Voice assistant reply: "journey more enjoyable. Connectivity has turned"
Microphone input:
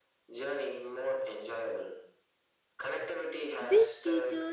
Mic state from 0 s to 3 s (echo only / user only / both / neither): echo only